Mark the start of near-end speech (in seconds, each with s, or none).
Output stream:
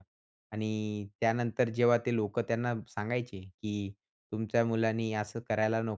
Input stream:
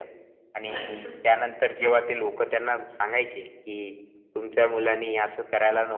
0.7 s